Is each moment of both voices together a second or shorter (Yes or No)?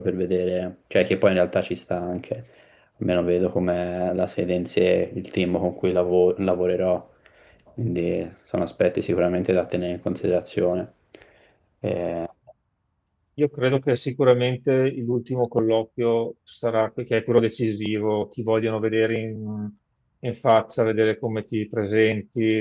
Yes